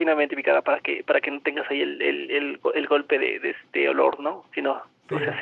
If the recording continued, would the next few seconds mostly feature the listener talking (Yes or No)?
No